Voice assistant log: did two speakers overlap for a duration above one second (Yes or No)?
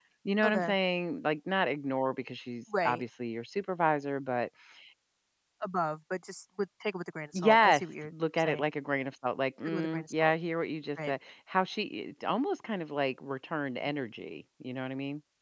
Yes